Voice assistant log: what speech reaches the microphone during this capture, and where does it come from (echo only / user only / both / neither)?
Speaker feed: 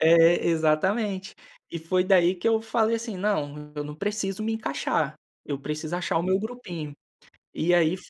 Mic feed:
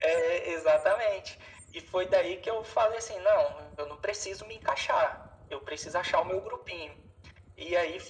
echo only